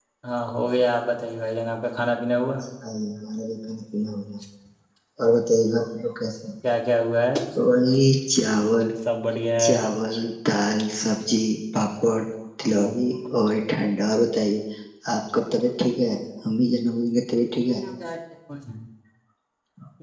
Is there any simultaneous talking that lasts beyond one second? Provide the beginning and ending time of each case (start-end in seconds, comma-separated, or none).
none